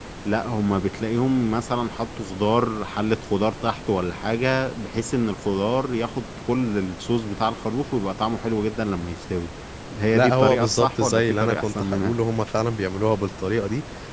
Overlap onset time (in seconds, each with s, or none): 10.1 s